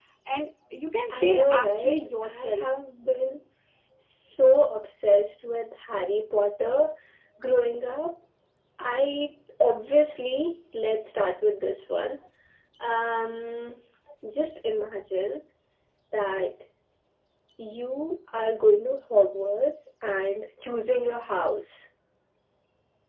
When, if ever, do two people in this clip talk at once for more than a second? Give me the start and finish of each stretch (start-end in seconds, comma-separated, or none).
1.1-2.6